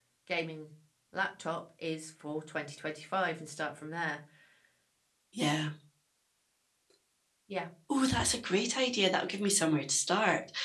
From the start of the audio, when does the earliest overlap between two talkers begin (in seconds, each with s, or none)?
none